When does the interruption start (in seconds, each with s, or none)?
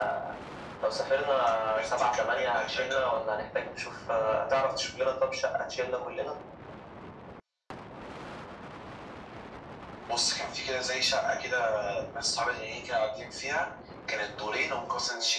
1.7 s